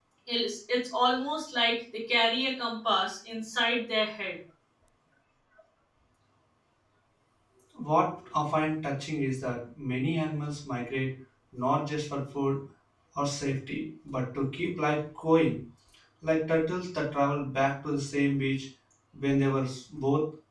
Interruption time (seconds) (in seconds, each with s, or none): none